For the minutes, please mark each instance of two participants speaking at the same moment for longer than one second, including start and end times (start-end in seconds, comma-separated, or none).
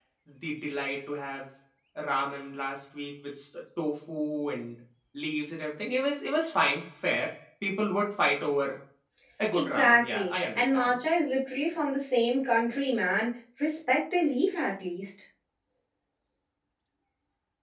9.5-11.0